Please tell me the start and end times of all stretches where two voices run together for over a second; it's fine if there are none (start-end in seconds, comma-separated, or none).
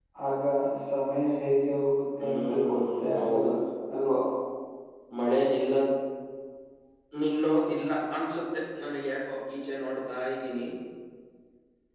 2.2-3.5